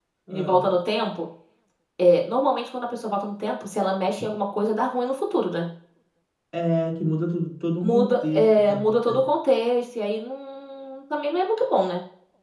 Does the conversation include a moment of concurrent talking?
Yes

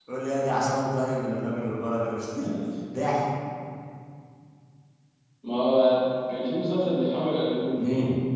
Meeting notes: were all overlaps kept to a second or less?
Yes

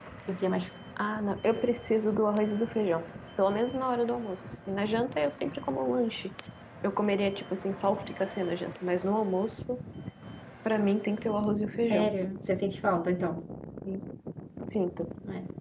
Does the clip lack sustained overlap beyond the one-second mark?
Yes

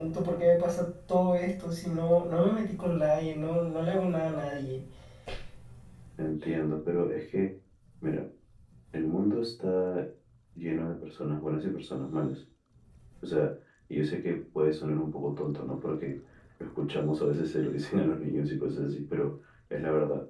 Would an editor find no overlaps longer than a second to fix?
Yes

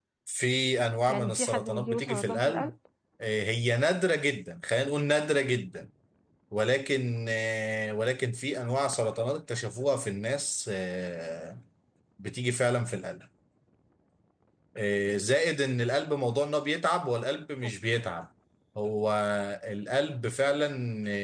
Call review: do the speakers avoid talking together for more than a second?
No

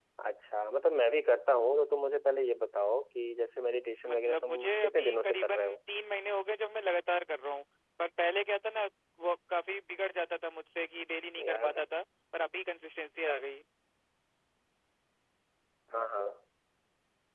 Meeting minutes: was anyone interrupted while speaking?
Yes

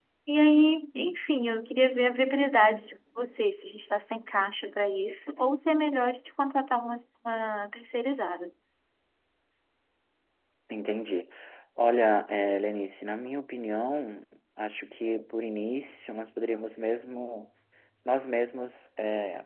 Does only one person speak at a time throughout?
Yes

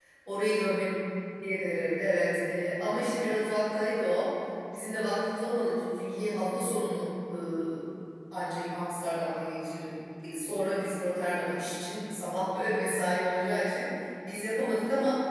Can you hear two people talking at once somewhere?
No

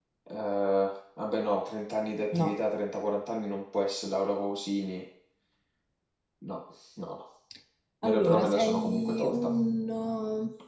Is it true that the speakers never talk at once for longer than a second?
No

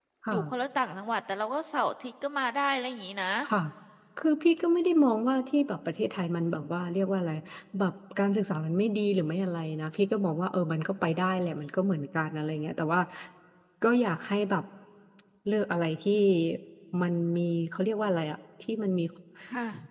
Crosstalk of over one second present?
No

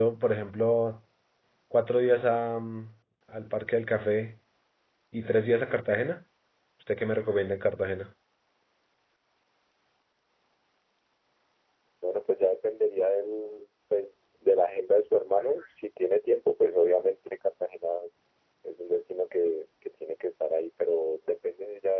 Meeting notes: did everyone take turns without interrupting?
Yes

